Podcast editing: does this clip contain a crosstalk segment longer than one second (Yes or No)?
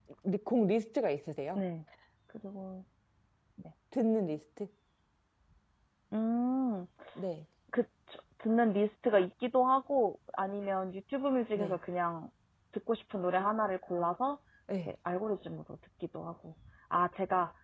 No